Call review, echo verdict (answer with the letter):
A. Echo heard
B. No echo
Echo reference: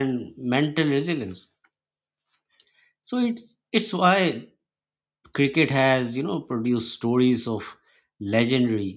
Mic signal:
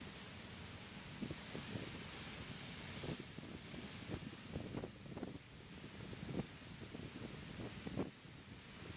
B